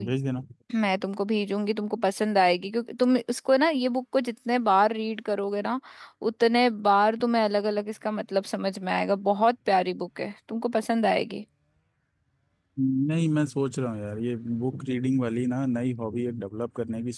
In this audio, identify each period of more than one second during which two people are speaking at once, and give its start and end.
none

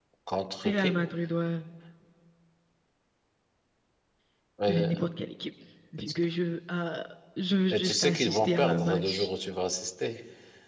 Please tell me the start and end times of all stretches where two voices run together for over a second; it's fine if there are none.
7.7-9.3

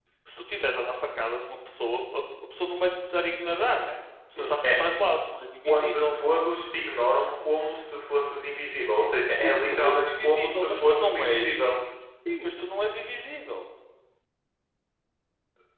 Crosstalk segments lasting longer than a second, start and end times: 9.4-11.6

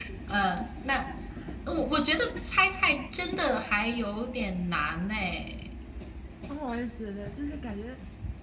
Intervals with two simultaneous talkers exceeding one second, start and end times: none

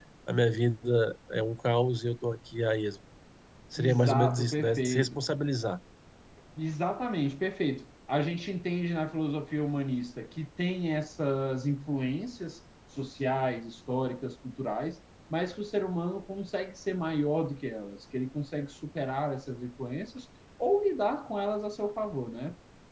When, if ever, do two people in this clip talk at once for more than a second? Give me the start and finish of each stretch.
3.8-5.2

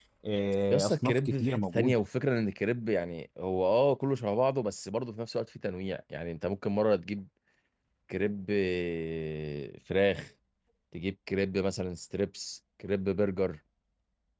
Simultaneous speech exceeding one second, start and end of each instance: 0.7-2.0

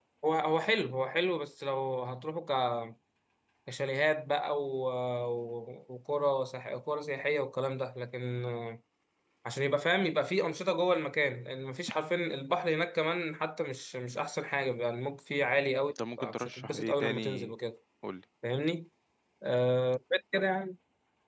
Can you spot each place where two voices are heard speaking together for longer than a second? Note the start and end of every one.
16.2-17.5

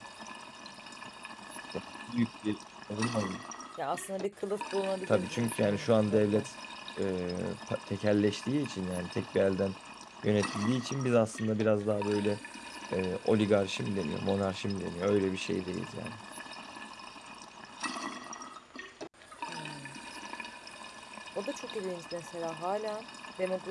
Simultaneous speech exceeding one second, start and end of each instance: 5.1-6.5

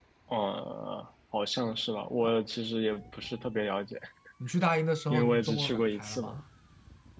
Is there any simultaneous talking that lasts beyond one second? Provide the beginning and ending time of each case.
5.1-6.4

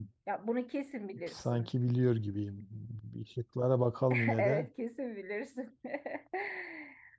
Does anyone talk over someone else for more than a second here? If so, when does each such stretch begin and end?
none

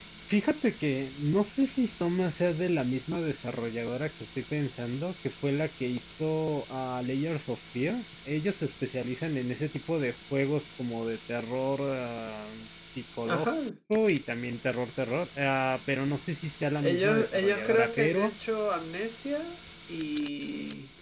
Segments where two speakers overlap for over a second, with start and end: 16.8-18.4

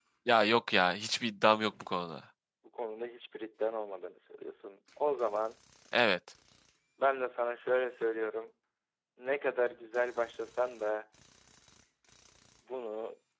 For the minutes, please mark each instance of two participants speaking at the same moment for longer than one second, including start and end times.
none

